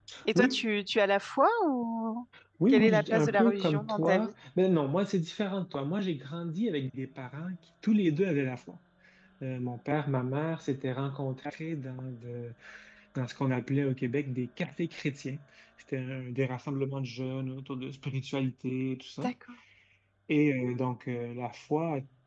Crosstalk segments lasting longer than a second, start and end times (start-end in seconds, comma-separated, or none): 2.7-4.3